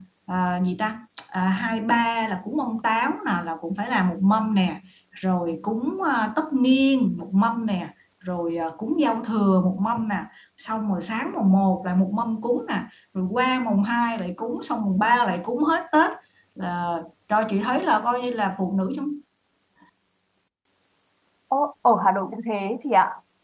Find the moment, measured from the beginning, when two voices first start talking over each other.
none

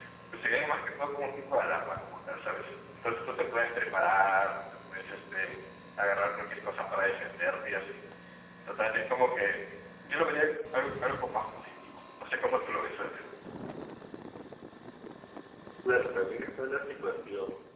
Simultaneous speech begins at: none

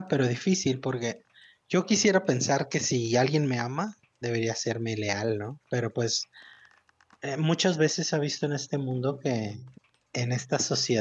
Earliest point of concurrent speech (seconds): none

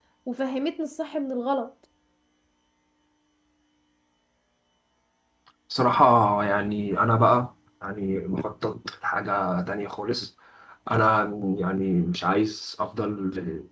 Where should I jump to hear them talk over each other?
none

